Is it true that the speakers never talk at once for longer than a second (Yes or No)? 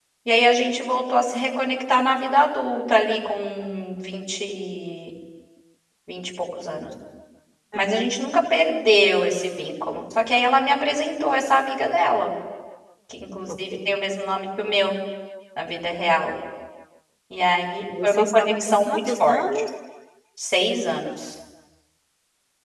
No